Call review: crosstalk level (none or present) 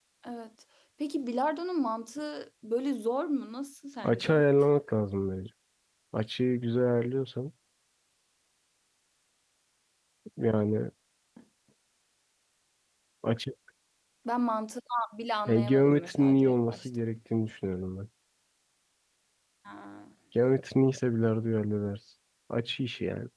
present